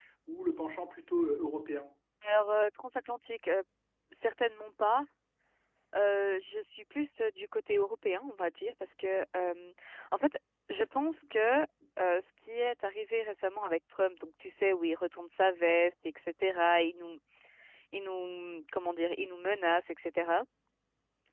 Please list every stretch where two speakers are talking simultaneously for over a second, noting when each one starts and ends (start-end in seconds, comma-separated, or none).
none